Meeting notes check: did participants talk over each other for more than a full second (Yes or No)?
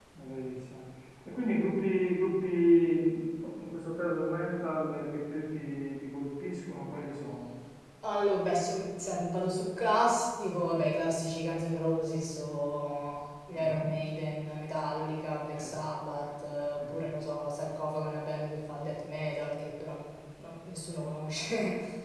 No